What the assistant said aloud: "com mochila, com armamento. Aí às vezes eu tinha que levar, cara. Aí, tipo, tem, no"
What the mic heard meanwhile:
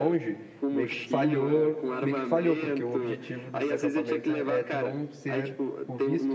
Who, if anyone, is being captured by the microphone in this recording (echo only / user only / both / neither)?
both